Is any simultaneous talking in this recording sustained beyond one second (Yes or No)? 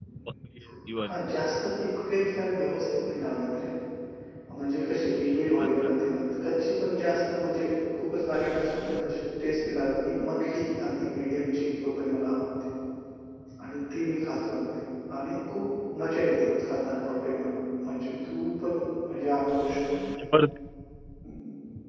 No